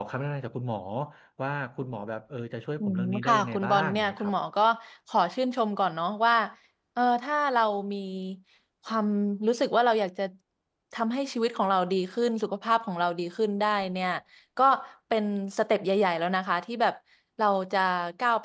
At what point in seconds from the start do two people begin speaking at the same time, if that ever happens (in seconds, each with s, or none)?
2.8 s